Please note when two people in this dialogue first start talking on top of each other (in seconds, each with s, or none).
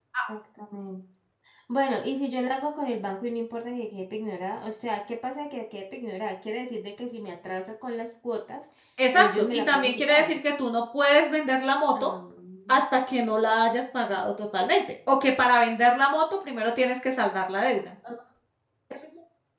9.1 s